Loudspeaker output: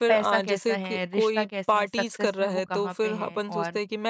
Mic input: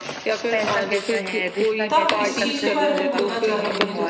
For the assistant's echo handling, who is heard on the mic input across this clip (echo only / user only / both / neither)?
both